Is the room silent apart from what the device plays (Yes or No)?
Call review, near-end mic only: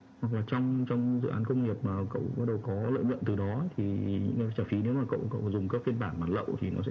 Yes